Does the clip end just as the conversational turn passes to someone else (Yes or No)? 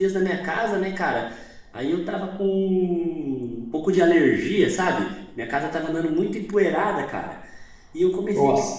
No